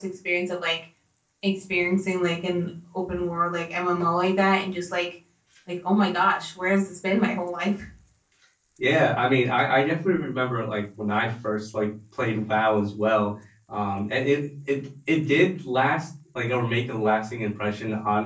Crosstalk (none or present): none